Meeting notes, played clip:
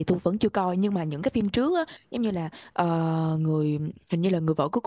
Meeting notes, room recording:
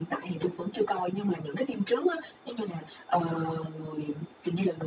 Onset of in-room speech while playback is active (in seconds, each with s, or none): none